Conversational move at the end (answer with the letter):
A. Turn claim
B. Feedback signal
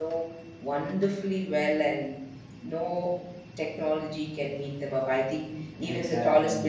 B